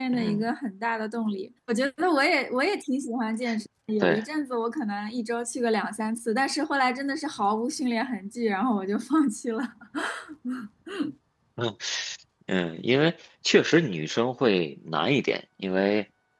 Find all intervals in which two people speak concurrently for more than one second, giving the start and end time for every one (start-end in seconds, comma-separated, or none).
none